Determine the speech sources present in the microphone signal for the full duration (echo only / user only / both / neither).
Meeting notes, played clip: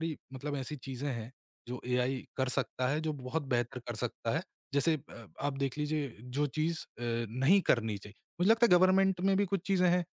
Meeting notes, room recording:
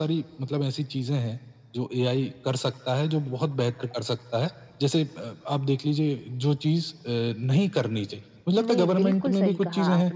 both